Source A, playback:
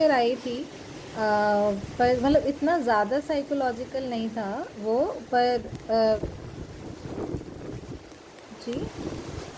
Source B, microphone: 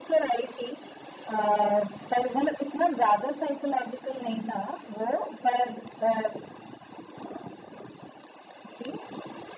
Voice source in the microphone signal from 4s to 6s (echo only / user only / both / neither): echo only